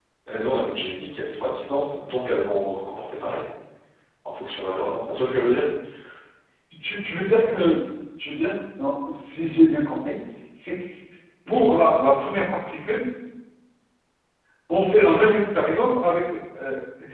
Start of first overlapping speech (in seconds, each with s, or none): none